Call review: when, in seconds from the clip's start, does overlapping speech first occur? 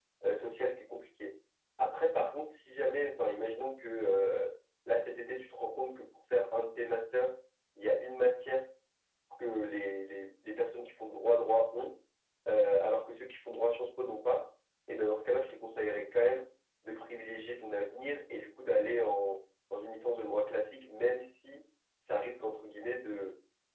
none

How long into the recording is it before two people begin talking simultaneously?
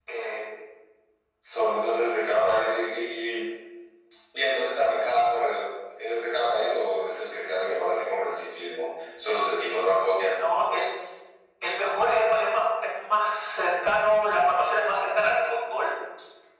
none

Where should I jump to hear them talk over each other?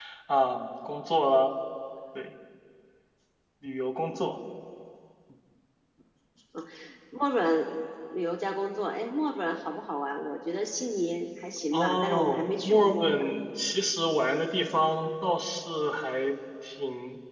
11.7 s

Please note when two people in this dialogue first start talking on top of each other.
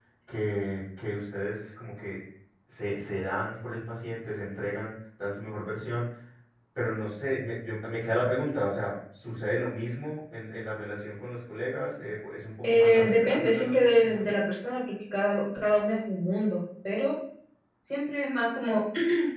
12.6 s

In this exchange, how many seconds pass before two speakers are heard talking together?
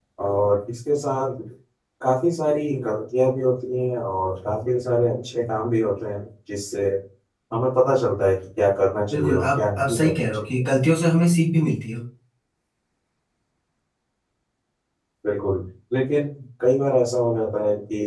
9.1 s

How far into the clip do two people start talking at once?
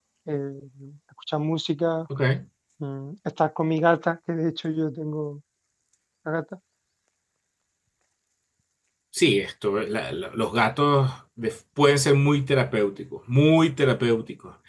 none

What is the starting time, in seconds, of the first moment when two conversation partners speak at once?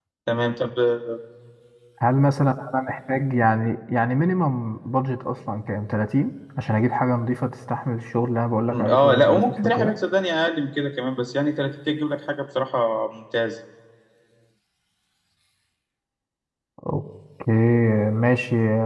8.7 s

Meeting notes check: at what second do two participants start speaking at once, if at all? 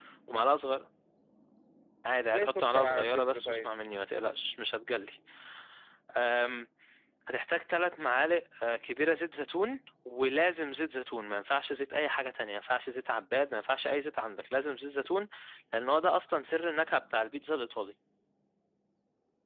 2.2 s

